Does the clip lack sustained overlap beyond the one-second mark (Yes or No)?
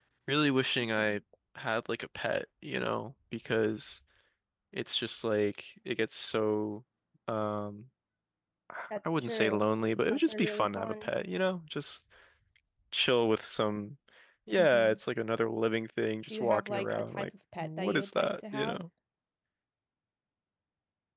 No